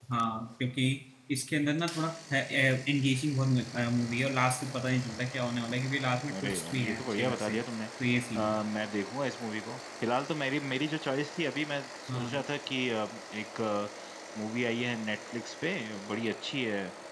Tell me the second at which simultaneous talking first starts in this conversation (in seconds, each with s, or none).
6.3 s